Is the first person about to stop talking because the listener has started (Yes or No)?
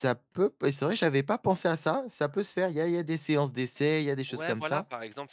Yes